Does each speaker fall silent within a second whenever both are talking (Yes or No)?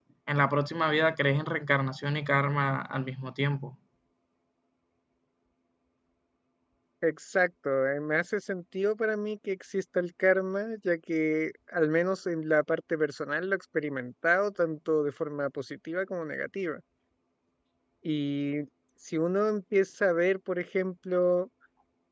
Yes